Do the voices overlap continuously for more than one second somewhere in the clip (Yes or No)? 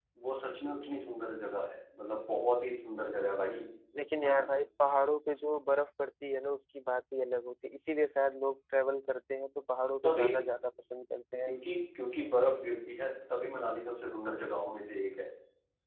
No